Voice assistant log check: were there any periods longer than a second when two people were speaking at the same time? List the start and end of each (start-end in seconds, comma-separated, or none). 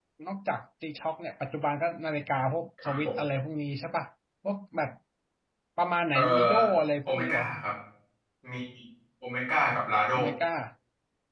none